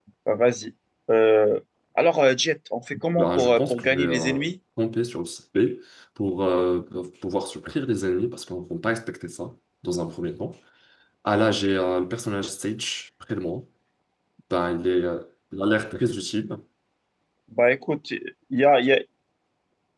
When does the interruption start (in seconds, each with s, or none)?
2.9 s